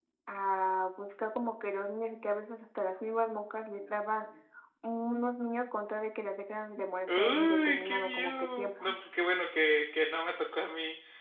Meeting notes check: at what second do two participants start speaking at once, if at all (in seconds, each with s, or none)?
7.1 s